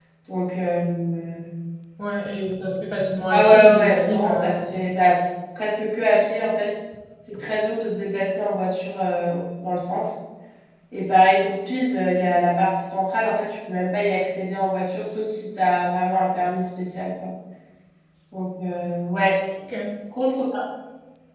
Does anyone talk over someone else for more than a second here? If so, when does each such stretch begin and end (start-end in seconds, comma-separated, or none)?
3.3-4.6